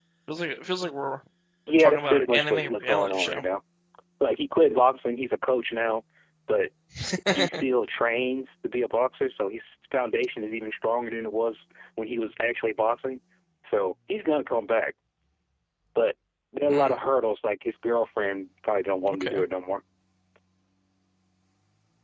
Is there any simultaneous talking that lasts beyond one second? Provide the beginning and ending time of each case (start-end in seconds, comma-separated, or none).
1.8-3.4